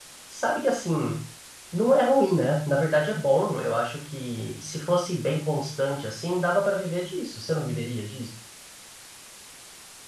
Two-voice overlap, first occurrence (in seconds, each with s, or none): none